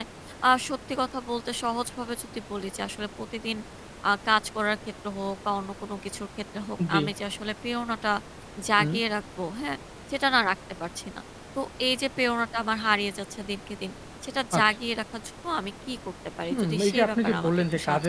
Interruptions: present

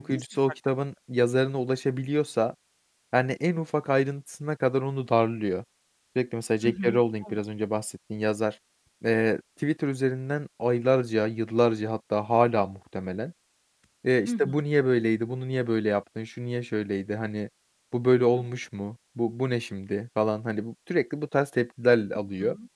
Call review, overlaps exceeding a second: none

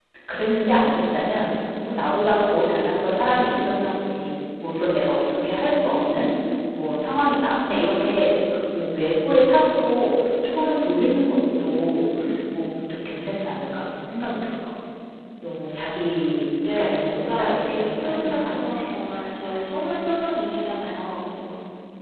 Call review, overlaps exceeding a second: present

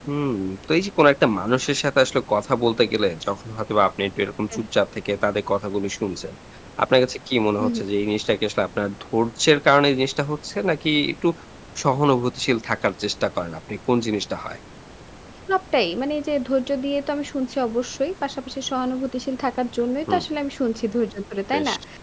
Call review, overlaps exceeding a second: none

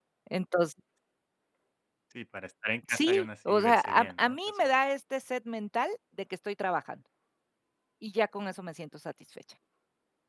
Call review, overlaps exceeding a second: present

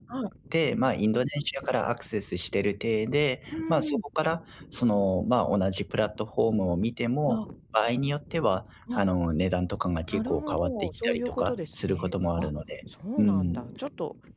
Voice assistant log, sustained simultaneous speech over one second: present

